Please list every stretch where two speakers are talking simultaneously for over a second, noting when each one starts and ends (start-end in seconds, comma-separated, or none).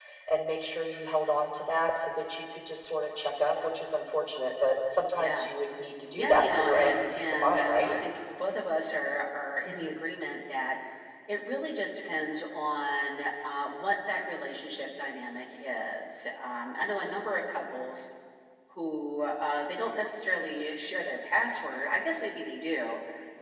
6.1-8.0